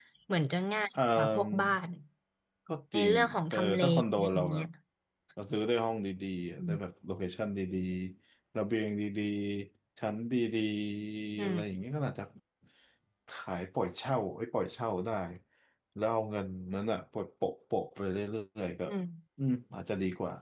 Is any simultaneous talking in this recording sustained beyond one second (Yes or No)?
Yes